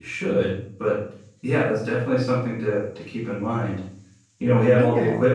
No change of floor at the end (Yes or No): Yes